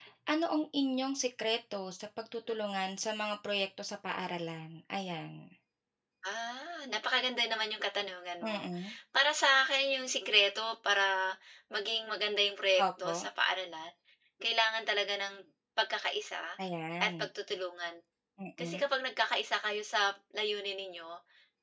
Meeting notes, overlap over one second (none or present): none